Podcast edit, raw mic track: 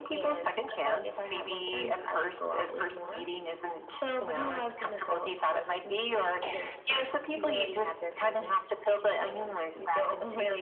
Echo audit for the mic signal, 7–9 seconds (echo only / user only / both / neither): echo only